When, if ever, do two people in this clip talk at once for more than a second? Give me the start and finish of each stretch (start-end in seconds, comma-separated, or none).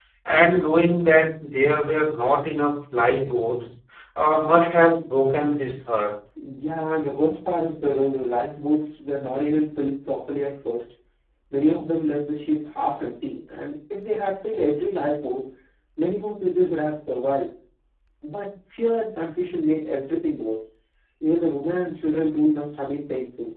none